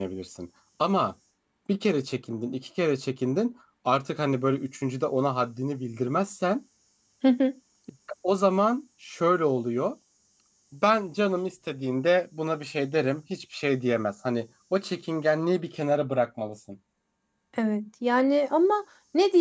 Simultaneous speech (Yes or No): No